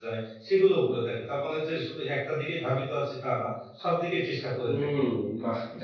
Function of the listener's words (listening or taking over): taking over